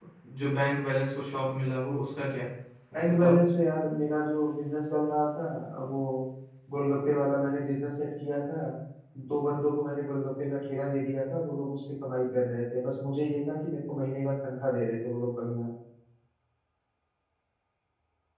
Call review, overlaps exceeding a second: none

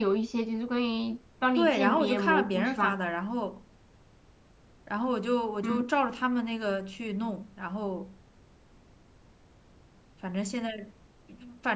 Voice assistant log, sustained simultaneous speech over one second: present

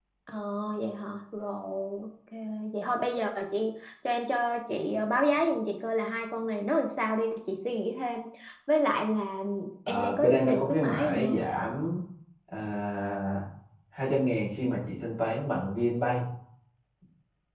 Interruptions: present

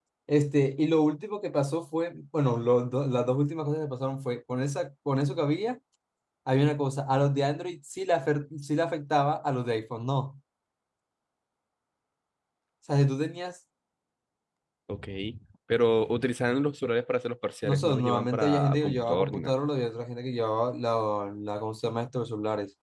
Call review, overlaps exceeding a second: present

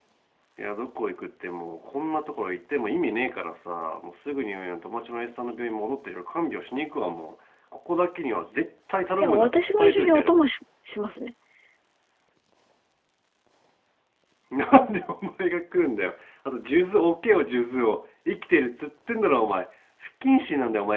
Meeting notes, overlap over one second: present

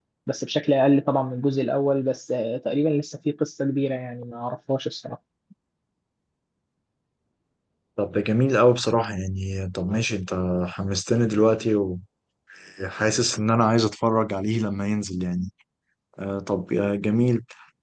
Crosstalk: none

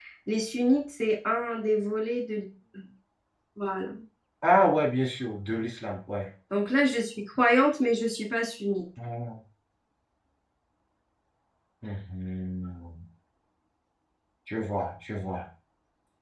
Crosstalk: none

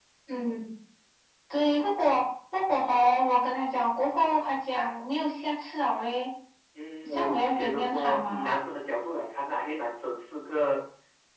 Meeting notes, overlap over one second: present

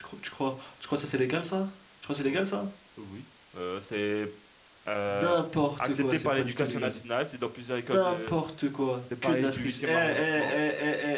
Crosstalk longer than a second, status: present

